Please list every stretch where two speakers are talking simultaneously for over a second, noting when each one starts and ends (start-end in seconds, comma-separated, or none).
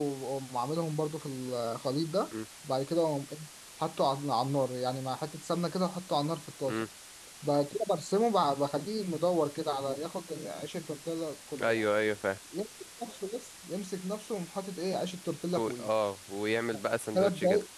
none